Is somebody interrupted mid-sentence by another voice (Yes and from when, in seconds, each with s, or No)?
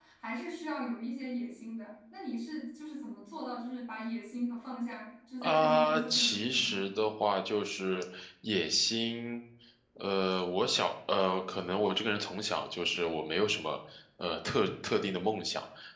Yes, from 5.4 s